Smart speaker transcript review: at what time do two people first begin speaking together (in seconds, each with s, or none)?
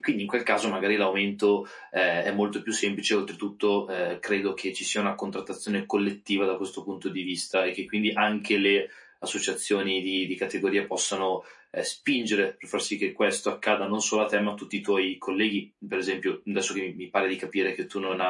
none